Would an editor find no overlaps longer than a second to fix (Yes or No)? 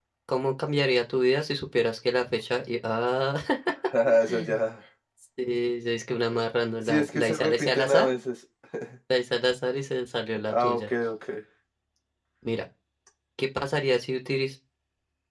No